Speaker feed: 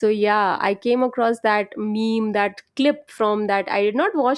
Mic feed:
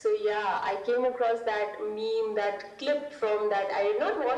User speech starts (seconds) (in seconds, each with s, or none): none